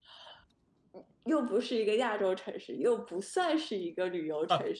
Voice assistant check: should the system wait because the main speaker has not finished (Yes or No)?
No